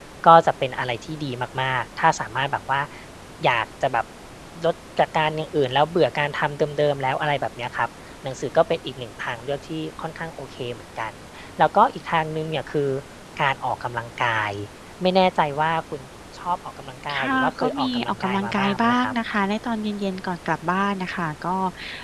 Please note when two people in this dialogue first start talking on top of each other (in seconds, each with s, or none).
17.1 s